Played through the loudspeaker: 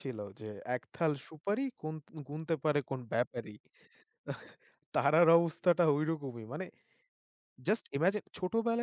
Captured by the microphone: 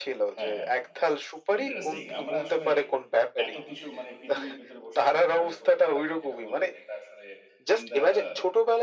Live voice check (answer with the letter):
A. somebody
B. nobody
A